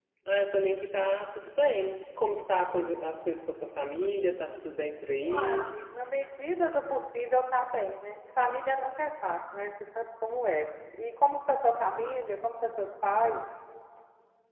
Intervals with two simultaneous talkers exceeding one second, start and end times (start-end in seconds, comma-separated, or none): none